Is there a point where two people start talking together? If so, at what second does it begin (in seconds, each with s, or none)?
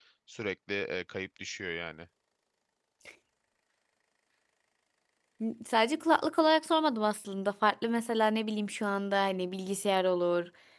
none